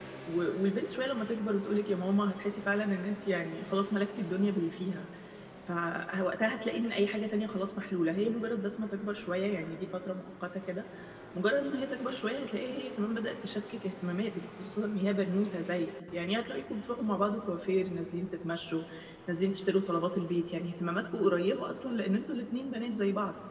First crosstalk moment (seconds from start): none

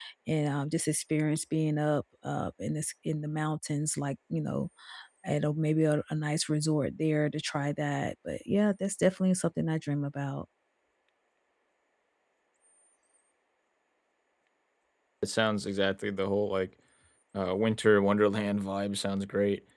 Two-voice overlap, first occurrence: none

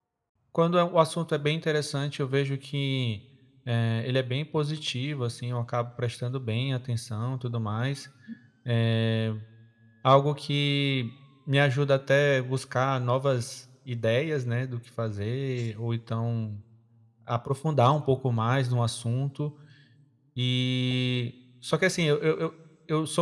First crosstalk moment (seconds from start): none

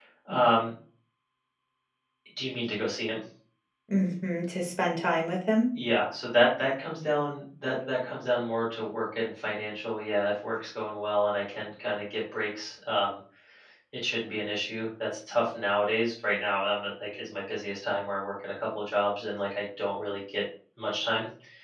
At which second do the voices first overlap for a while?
none

